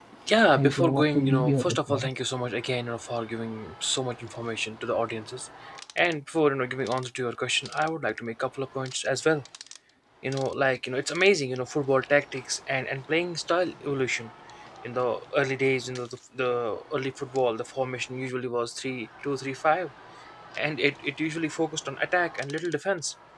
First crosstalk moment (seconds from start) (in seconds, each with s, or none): 0.6 s